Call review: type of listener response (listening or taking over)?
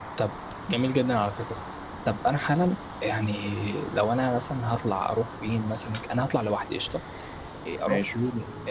listening